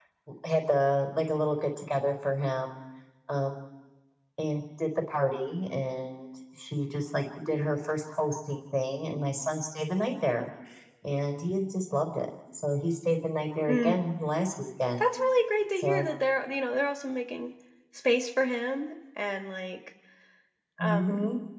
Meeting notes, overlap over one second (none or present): none